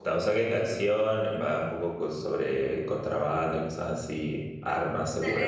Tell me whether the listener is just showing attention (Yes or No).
No